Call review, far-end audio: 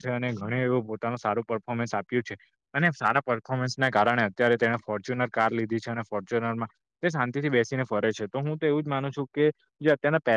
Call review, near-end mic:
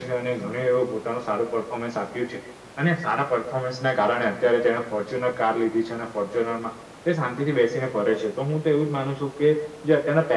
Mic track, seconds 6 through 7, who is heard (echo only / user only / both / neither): echo only